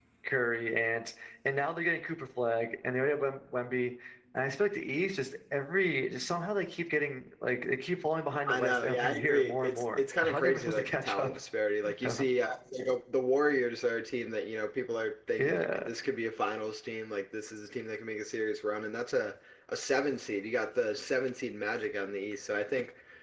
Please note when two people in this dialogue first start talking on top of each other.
8 s

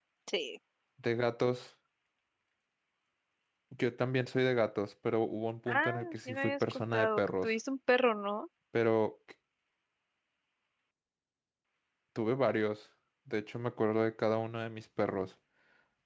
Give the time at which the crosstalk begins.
6 s

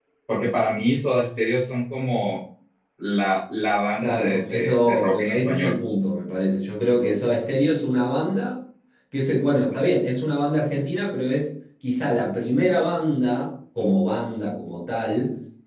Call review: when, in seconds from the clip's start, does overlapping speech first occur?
4 s

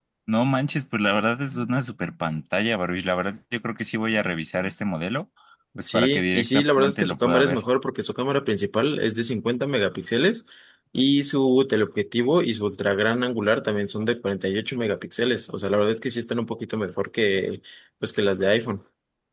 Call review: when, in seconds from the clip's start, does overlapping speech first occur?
6 s

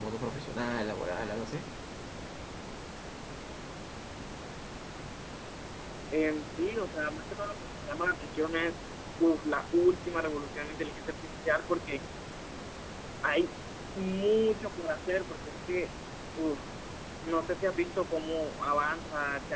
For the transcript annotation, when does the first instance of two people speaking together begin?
none

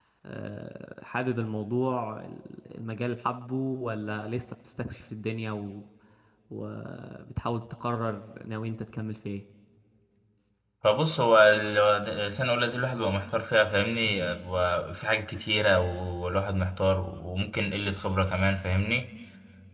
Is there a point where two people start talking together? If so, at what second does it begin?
none

